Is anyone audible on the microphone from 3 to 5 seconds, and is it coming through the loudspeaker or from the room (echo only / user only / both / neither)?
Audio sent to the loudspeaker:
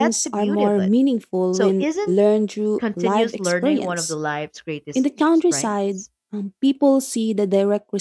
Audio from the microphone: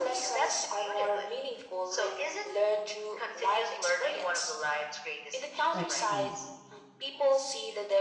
echo only